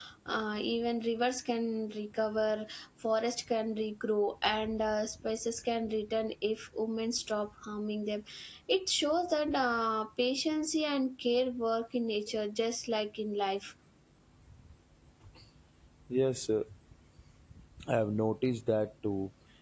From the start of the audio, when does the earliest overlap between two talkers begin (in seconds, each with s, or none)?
none